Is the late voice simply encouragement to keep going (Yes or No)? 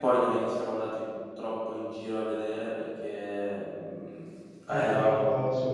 Yes